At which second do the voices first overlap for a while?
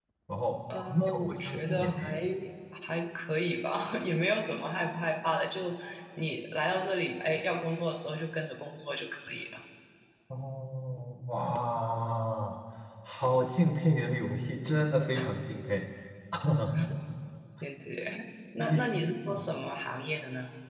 0.8 s

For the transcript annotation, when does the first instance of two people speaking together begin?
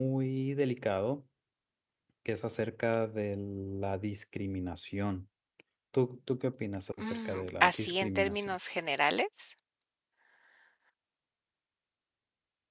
7.0 s

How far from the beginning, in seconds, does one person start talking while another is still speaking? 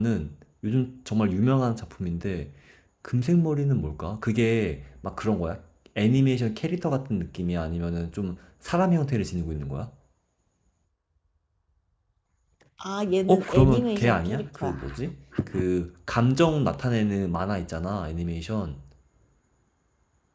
13.3 s

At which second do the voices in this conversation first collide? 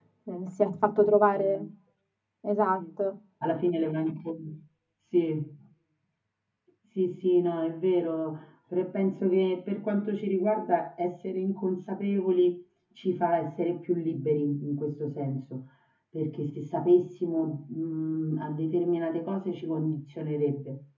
none

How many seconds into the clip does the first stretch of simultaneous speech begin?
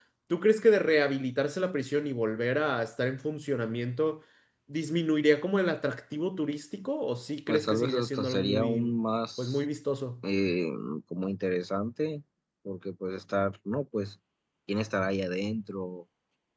7.5 s

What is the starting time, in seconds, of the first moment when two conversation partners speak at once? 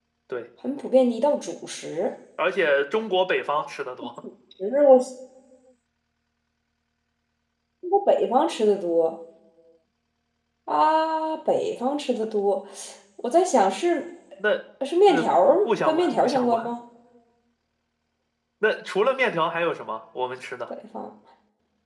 15.1 s

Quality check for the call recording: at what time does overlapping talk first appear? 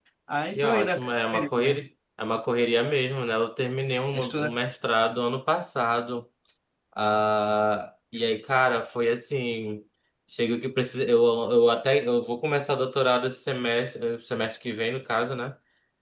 0.6 s

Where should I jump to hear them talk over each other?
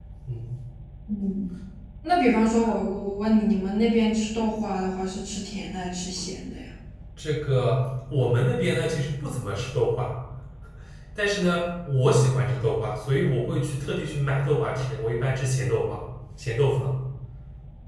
none

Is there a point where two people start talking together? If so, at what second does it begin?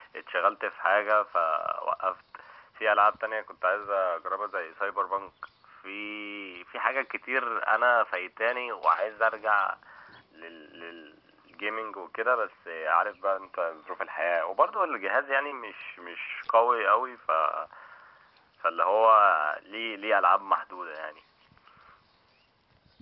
none

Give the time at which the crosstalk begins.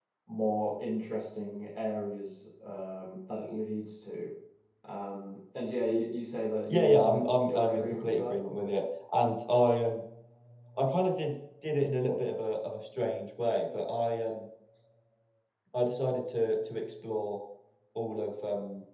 6.7 s

